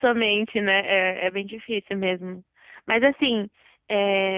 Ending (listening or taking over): listening